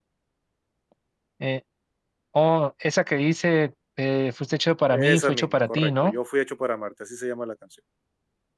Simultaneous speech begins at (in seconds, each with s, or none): 4.9 s